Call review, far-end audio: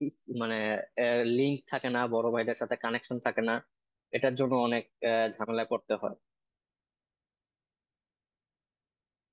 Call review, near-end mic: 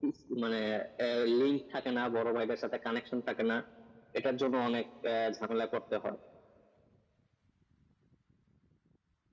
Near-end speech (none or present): none